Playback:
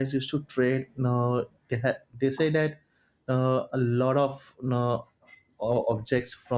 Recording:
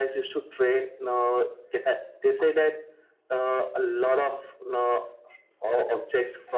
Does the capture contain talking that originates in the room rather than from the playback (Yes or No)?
No